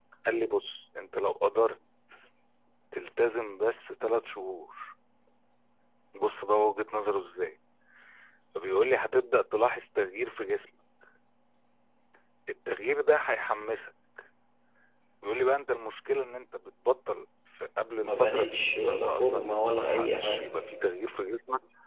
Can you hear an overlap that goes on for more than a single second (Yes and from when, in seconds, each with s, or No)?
Yes, from 18.0 s